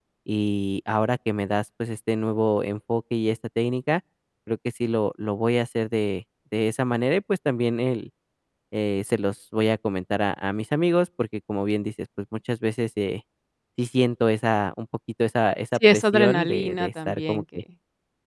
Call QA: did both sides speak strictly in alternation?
No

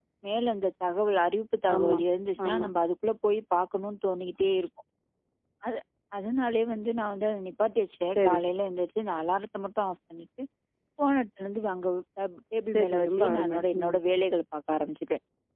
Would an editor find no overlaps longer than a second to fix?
No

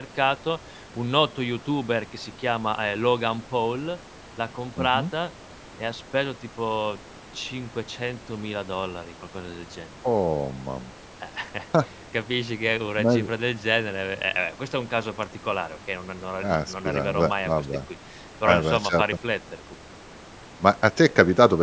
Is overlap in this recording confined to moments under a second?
No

